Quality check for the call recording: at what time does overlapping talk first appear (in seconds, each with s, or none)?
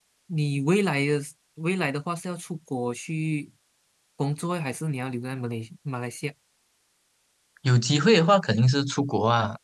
none